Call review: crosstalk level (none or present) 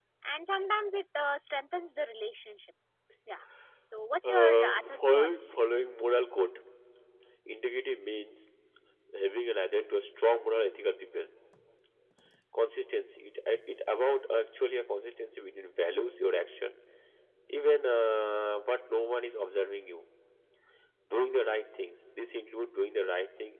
present